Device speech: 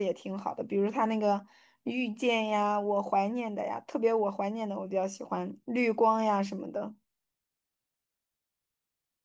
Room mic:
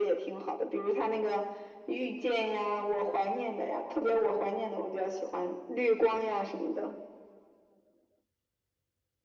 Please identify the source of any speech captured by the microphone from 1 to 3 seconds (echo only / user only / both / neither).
echo only